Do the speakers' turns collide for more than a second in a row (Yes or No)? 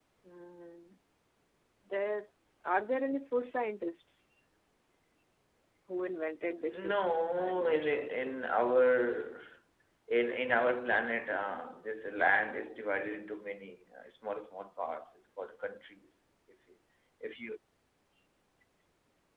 Yes